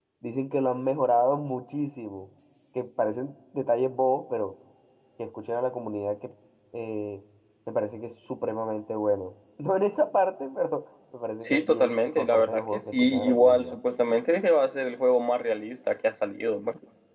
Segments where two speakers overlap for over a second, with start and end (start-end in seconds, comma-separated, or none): 11.4-13.8